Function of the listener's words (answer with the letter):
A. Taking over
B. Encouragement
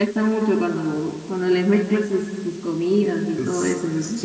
A